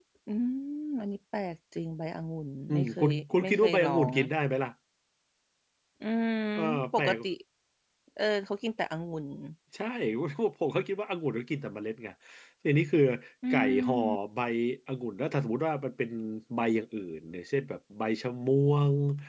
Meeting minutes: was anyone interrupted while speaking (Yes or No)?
Yes